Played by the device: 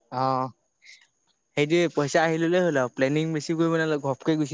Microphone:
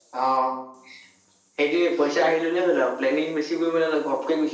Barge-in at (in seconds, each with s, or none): none